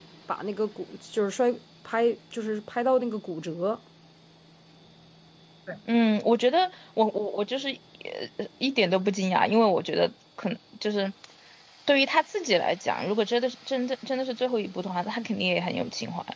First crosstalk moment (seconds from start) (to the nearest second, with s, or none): none